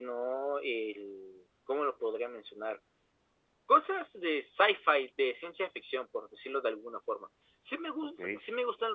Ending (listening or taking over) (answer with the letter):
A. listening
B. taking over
A